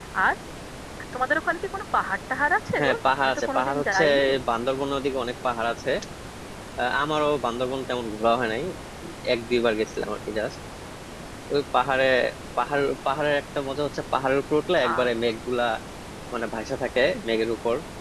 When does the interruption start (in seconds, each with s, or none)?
2.8 s